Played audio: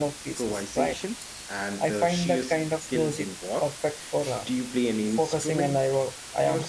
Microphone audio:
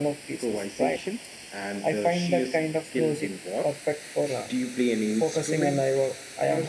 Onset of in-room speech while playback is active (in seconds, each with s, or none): none